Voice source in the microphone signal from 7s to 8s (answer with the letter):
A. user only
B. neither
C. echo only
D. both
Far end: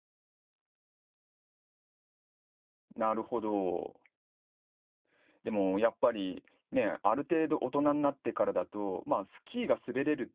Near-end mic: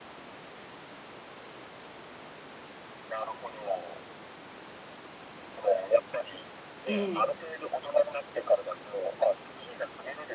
D